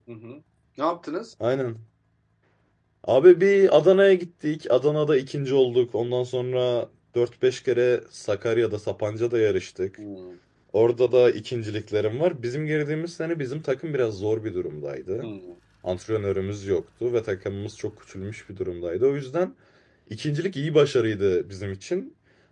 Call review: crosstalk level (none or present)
none